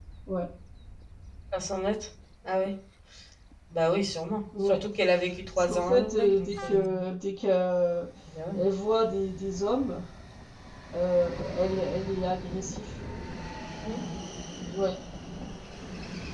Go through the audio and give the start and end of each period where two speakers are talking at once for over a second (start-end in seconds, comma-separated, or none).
5.6-6.8